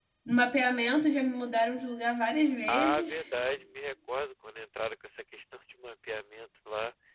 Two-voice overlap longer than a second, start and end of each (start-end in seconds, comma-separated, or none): none